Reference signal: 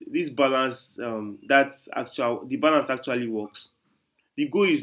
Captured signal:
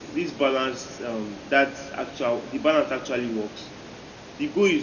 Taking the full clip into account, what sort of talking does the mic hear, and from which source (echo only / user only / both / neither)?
echo only